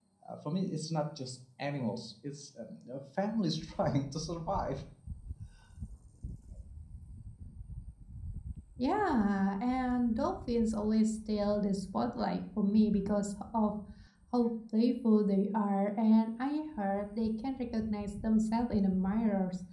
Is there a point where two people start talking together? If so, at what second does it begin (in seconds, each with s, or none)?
none